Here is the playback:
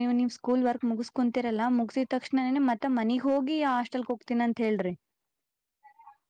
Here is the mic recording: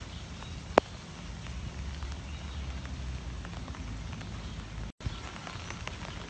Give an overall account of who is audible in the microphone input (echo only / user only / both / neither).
neither